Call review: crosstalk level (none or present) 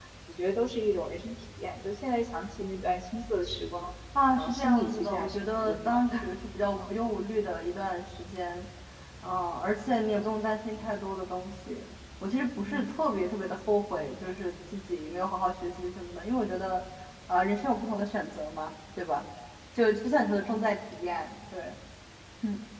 present